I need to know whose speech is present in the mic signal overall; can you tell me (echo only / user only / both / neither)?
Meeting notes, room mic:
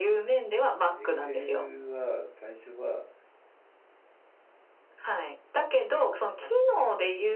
both